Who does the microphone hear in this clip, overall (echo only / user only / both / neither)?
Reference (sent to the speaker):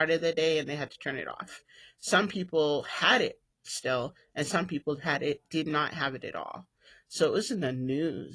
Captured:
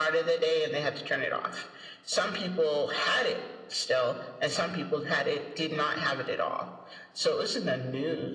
echo only